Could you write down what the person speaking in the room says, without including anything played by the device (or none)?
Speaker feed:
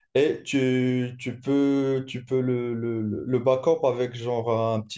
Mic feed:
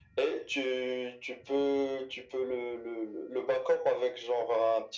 none